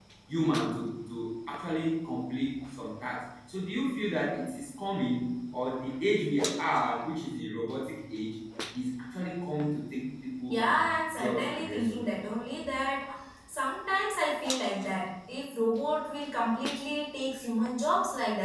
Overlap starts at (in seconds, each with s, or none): 10.5 s